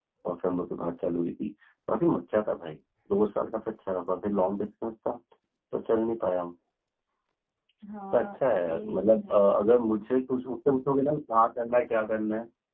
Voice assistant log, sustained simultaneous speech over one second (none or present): present